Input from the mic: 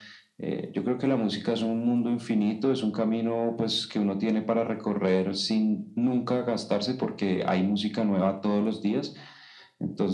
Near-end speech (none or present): none